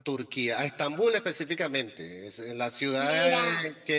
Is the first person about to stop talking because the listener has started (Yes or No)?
No